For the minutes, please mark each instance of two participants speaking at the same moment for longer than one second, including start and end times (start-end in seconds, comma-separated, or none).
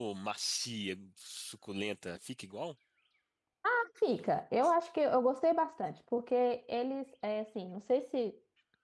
none